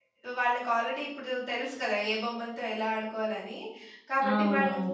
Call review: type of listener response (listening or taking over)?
listening